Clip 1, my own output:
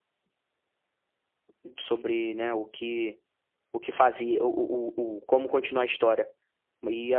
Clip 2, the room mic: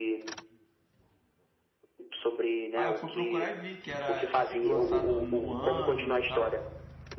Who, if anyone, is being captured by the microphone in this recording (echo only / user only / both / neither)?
both